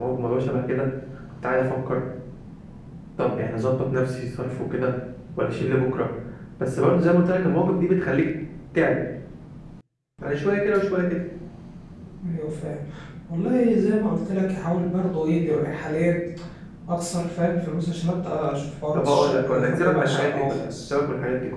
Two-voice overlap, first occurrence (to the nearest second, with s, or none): 19 s